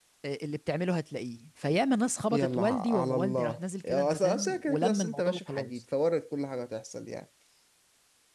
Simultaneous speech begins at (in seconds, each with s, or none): 2.3 s